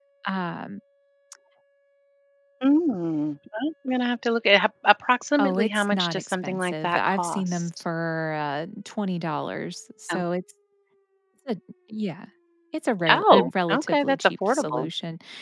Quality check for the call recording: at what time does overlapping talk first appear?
5.4 s

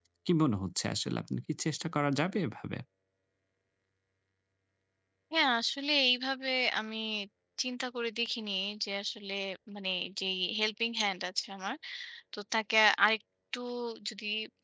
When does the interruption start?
none

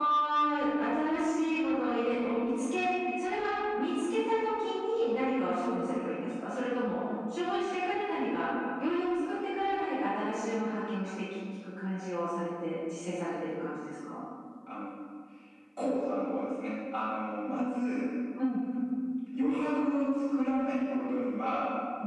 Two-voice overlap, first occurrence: none

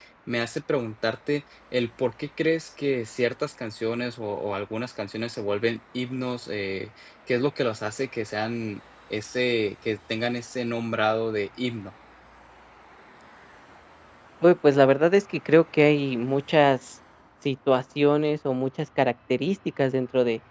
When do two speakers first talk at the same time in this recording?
none

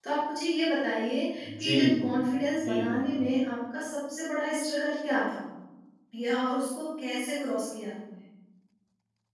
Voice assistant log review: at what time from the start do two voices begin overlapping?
1.4 s

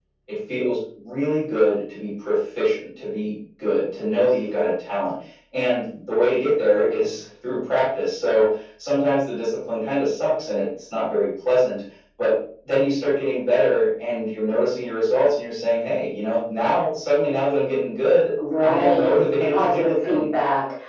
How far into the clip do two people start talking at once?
18.6 s

